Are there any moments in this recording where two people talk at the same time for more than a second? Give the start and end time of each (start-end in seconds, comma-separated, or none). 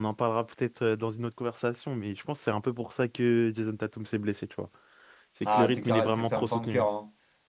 5.4-6.8